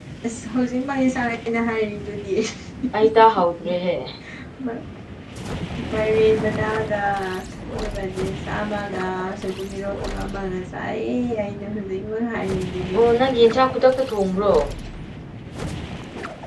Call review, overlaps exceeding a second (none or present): none